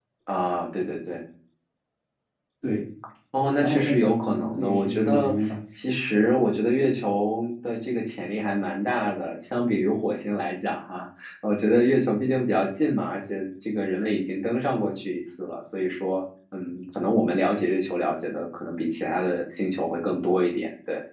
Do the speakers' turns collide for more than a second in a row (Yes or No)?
Yes